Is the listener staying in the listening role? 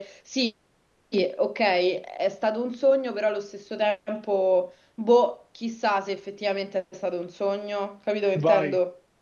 No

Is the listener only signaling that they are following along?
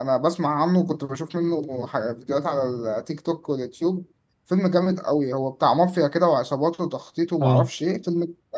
Yes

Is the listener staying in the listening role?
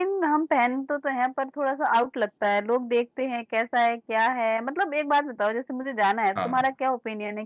Yes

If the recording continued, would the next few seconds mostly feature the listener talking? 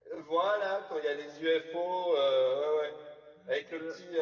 No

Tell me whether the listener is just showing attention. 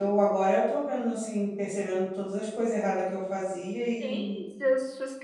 No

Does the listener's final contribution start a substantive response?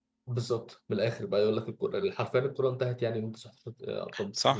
Yes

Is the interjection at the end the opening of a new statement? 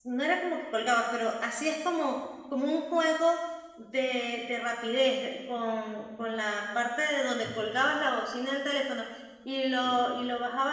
No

